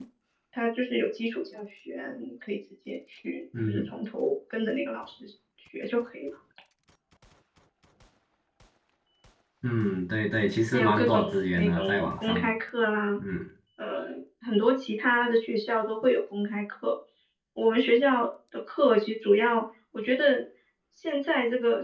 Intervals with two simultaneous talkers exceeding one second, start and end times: 10.7-12.5

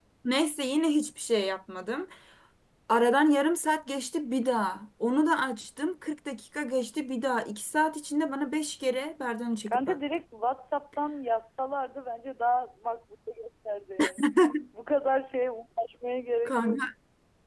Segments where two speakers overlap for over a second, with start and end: none

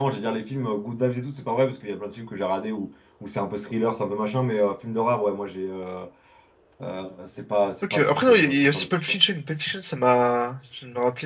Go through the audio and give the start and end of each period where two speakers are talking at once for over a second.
7.9-9.2

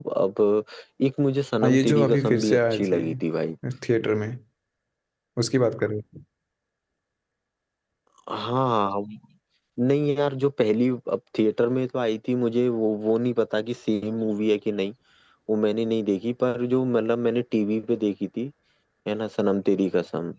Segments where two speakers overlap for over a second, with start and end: 1.6-3.0

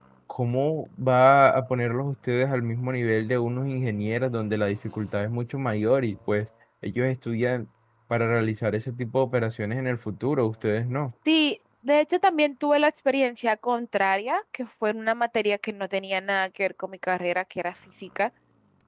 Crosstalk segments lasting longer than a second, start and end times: none

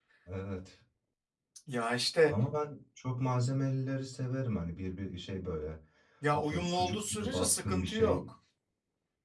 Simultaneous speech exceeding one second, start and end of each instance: 6.3-8.2

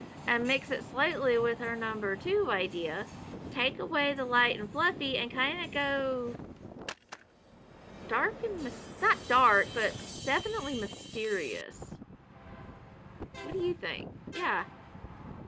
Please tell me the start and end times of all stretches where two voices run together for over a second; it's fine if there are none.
none

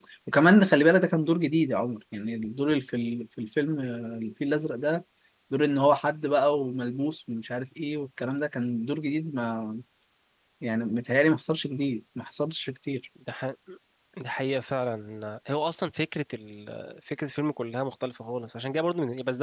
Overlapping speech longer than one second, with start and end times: none

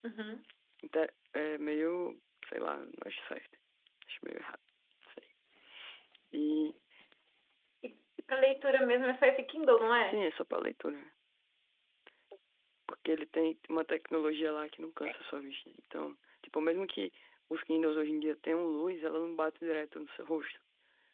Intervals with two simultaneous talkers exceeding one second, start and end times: none

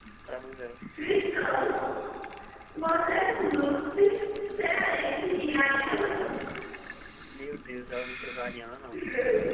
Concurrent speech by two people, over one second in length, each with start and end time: none

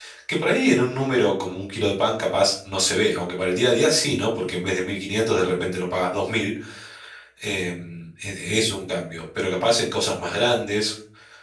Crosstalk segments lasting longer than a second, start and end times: none

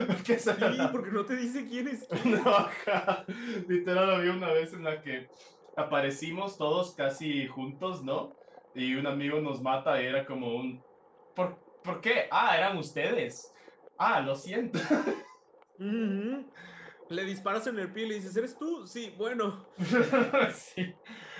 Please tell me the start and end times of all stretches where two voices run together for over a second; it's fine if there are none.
none

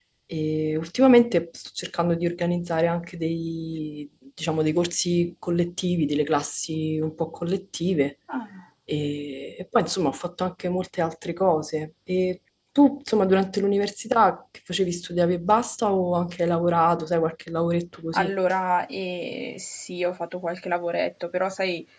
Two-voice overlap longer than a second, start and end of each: none

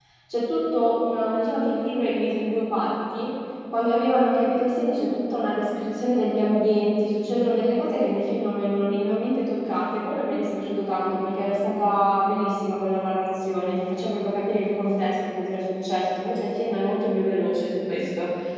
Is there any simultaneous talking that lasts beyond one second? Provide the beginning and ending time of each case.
none

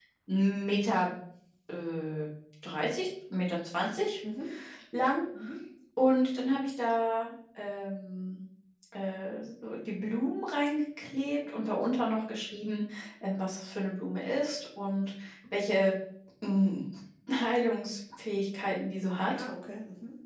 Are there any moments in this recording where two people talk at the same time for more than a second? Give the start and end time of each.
none

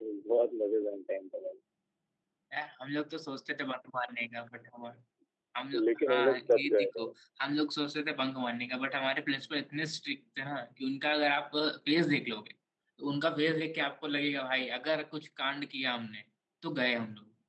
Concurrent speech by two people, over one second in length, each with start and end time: 5.8-7.1

